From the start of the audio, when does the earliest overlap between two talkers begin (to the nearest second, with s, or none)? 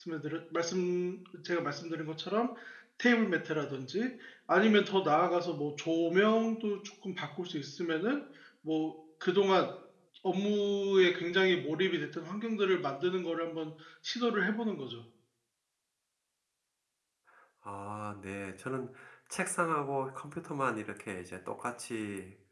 none